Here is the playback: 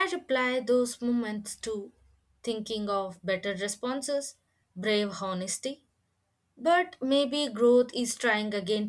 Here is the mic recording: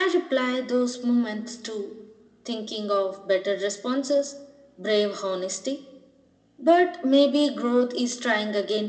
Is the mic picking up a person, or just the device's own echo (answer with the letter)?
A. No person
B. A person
A